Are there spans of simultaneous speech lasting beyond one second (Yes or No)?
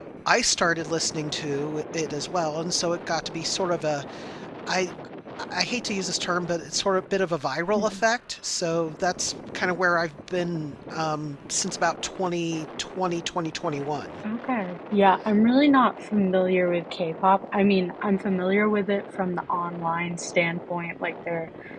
No